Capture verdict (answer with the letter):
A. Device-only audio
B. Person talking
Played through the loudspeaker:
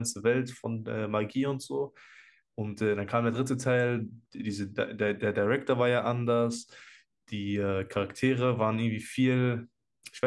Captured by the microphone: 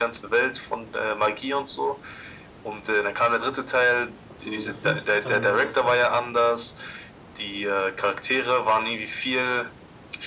B